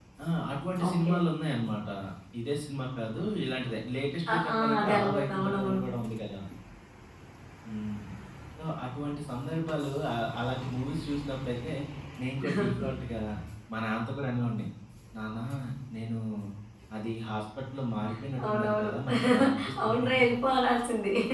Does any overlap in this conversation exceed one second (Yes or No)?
Yes